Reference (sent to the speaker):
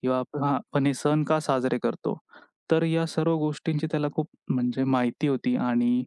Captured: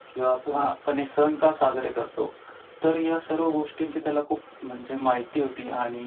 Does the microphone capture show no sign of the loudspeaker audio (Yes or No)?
No